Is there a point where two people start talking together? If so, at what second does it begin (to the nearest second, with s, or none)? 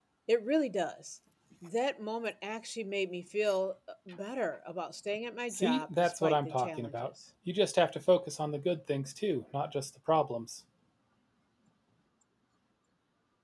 5 s